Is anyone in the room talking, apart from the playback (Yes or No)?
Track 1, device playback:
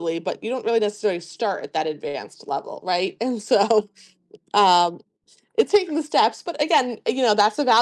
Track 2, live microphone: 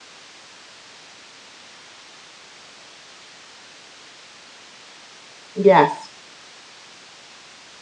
Yes